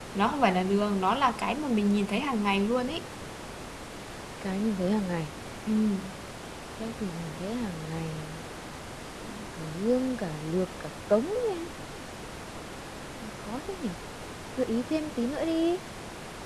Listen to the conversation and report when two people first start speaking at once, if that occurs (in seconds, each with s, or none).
none